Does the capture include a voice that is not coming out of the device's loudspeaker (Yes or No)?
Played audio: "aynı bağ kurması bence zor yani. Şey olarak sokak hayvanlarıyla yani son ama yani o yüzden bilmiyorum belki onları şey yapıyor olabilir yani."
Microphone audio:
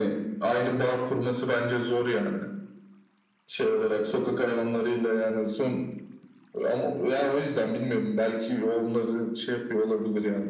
No